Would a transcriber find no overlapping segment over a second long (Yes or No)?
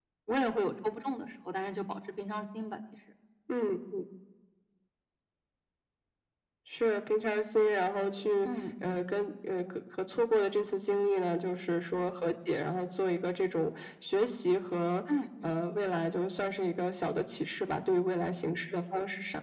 Yes